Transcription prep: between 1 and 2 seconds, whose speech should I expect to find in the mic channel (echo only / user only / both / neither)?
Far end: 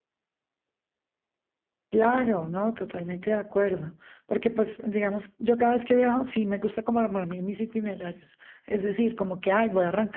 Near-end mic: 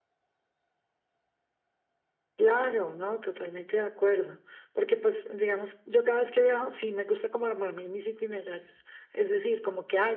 neither